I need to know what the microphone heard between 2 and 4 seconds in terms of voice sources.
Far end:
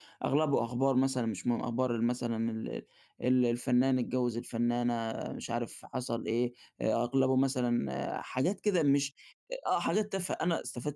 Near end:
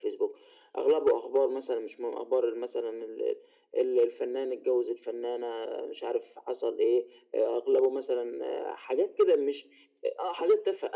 echo only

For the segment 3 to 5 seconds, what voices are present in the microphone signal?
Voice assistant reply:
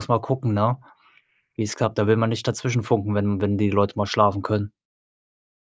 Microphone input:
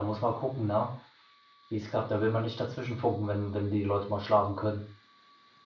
echo only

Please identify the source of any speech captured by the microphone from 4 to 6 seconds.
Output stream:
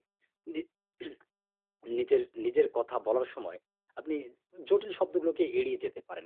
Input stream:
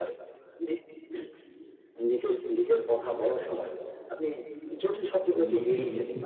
both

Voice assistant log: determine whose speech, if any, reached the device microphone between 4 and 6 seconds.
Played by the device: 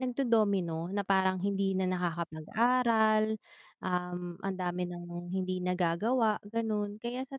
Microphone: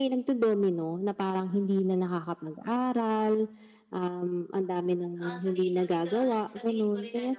both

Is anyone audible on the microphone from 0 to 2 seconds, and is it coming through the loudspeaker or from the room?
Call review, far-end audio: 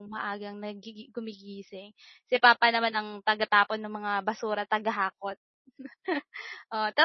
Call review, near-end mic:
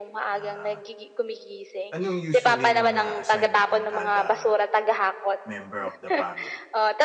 both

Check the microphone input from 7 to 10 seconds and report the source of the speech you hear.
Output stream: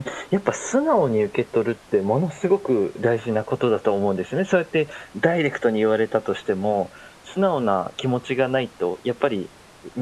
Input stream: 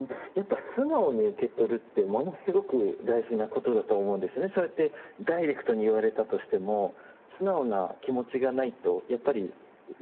echo only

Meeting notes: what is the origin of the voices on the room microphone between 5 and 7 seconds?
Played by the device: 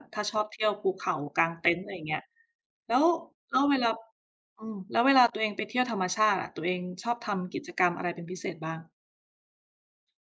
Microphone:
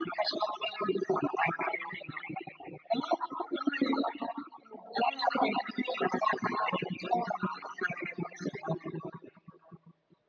echo only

